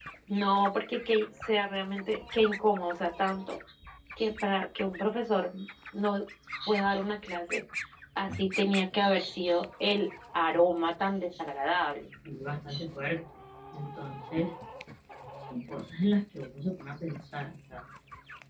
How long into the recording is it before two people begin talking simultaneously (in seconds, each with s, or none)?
none